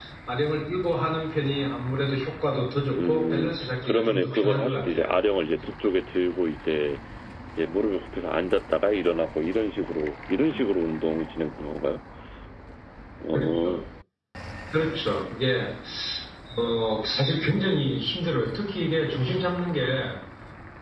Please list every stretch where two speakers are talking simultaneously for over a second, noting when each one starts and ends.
3.0-5.1

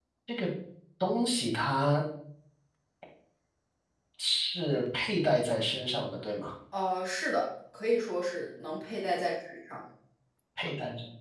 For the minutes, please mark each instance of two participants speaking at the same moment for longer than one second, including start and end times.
none

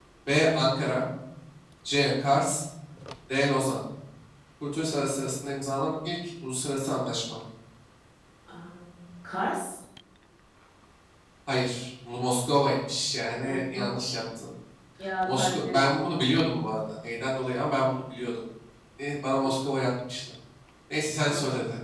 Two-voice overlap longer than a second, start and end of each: none

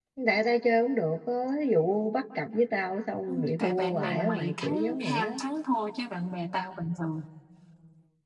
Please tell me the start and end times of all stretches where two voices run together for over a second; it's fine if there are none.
3.3-5.3

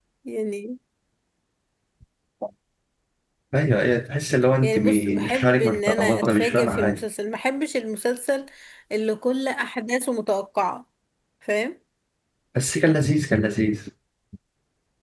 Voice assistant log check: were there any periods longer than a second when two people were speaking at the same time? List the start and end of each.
4.6-7.0

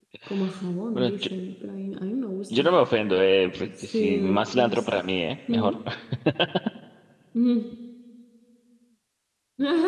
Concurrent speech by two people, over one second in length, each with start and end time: 3.7-5.0

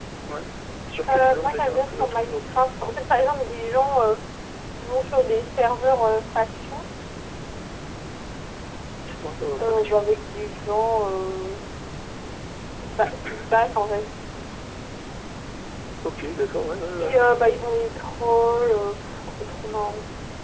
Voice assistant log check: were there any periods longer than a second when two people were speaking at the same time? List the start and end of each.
1.1-2.5

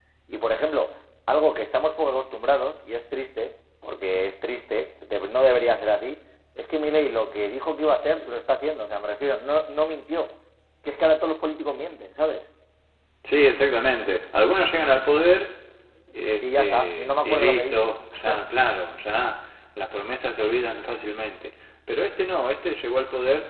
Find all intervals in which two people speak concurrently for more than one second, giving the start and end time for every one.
16.4-17.9

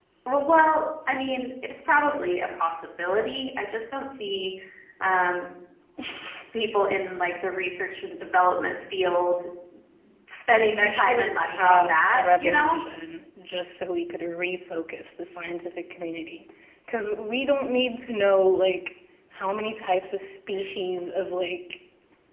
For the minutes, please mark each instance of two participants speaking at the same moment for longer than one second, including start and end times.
10.7-12.8

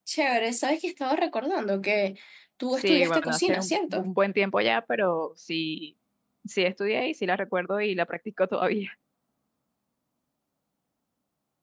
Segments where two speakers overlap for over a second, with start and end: 2.8-4.1

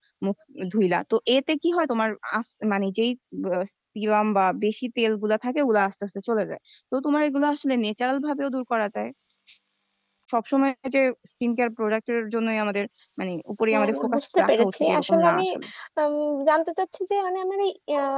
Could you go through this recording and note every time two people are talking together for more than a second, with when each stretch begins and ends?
13.7-15.4

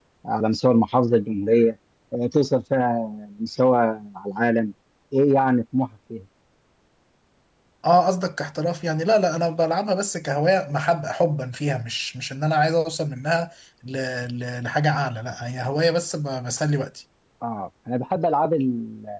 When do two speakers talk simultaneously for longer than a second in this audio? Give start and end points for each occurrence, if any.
none

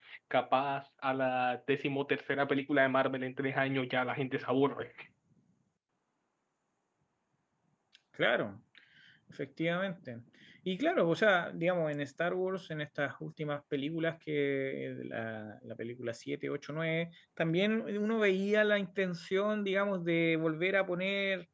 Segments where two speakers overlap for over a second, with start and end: none

